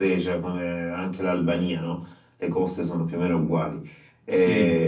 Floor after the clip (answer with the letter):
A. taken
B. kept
A